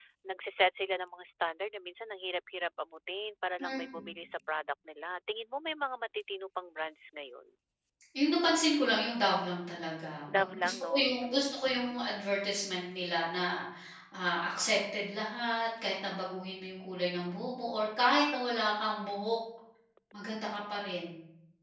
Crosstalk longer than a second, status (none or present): present